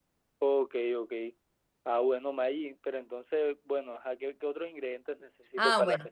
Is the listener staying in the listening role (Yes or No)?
No